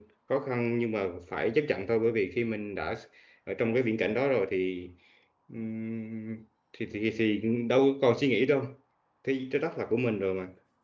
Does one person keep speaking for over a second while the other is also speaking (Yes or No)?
No